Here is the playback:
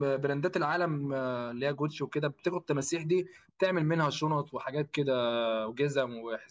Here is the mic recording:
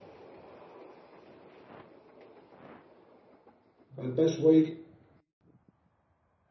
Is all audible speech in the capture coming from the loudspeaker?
No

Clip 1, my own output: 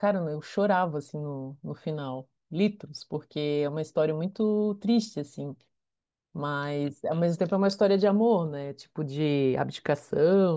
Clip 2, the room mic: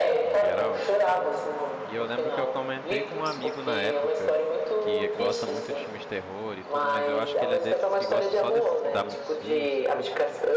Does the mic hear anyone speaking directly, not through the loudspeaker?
Yes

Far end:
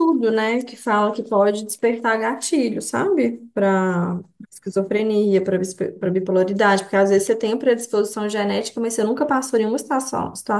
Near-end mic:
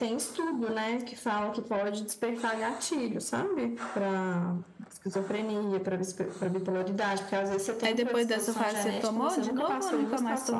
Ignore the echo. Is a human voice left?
Yes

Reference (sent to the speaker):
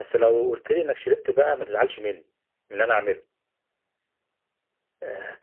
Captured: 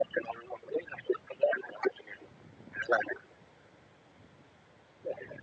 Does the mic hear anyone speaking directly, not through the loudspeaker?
No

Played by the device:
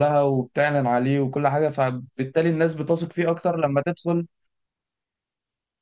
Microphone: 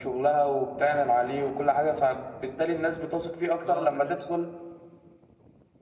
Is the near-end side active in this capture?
Yes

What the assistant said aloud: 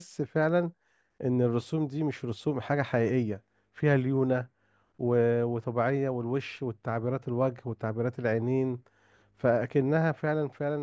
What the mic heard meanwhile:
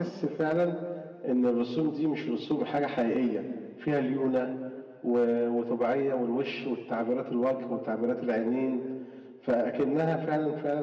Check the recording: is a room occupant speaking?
No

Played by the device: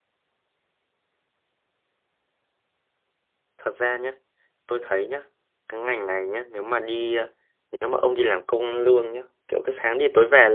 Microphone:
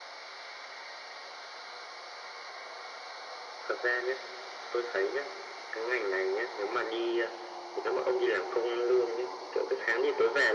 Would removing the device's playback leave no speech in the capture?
Yes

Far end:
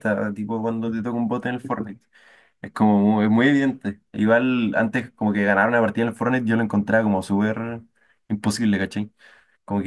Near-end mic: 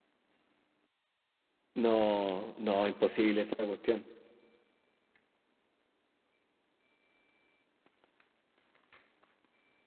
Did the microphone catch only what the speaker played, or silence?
No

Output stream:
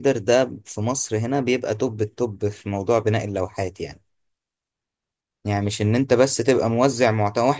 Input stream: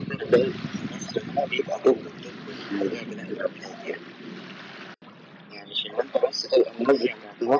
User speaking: No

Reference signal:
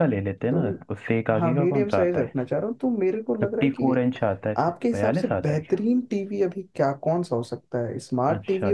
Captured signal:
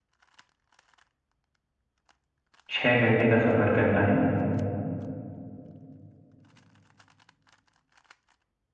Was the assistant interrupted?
Yes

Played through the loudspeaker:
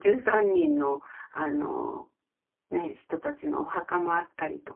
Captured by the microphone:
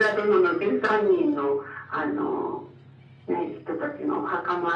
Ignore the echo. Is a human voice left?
No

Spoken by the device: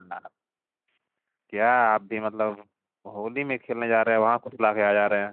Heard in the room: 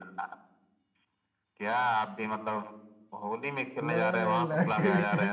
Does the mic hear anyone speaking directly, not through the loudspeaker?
Yes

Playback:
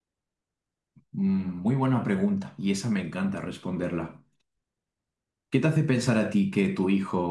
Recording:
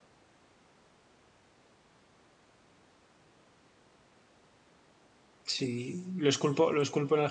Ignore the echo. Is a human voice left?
Yes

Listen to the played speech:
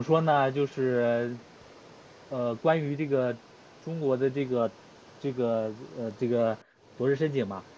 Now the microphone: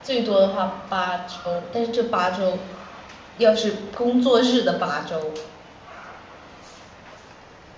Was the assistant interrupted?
Yes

